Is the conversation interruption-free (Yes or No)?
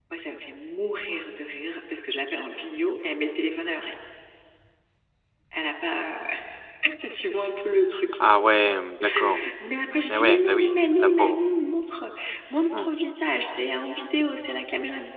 No